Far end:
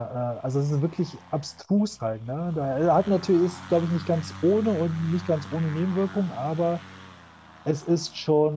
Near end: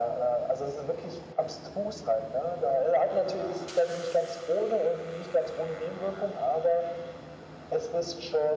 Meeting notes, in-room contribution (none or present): none